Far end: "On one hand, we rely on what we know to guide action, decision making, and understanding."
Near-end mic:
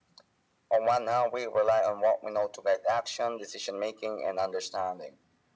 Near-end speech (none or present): none